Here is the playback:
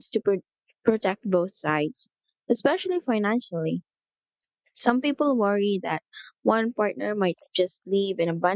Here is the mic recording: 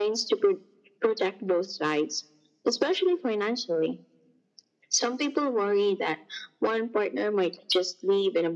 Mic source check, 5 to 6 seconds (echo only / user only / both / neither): echo only